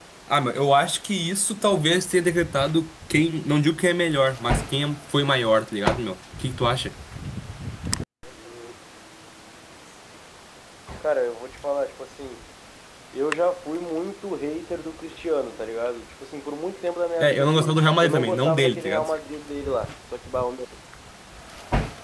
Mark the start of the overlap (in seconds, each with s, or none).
17.2 s